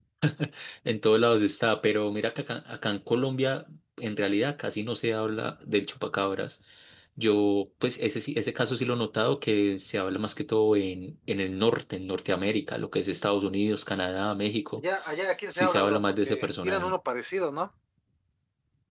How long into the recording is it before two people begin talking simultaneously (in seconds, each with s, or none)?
15.5 s